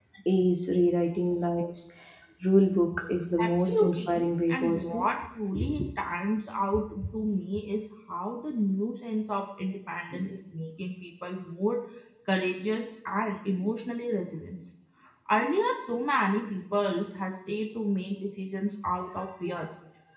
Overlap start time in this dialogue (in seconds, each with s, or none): 3.4 s